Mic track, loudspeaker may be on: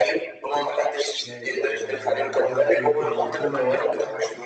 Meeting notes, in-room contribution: present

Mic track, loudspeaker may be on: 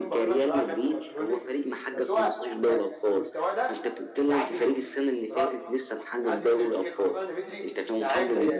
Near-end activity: present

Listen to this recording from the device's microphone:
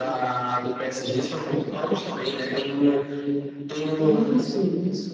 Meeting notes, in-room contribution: present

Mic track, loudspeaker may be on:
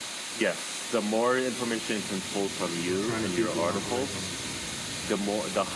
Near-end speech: present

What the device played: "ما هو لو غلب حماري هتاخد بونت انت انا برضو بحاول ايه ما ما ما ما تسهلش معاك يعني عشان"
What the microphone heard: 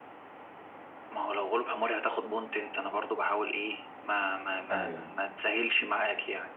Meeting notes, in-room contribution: present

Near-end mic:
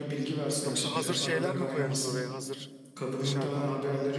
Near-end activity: present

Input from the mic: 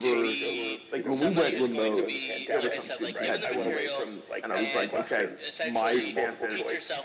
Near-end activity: present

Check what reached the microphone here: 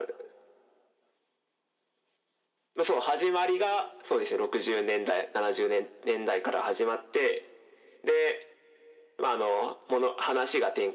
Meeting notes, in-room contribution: none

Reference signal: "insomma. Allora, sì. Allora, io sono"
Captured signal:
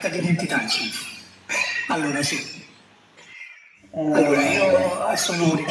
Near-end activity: present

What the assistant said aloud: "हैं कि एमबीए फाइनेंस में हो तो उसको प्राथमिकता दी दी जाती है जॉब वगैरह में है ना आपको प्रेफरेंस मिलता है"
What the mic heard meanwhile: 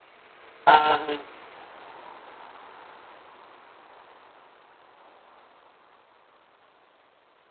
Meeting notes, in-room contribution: present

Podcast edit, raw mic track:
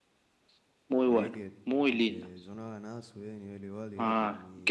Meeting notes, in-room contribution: present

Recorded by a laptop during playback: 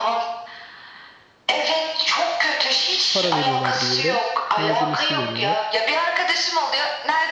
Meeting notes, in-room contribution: present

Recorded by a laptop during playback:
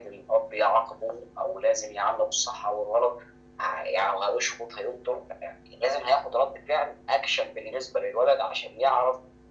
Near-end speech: none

